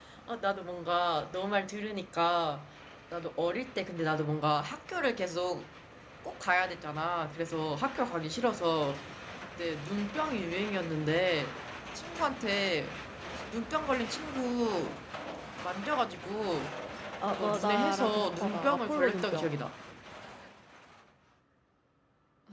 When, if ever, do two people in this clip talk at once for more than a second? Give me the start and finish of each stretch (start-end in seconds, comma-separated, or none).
17.2-19.5